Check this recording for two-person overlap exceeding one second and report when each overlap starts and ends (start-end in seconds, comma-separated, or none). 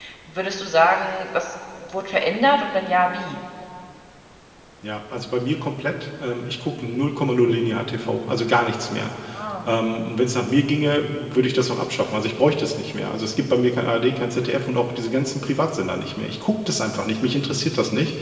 none